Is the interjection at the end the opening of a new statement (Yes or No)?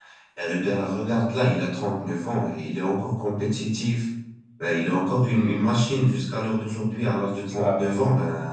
No